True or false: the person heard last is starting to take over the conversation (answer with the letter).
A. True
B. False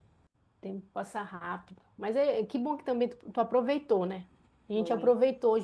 B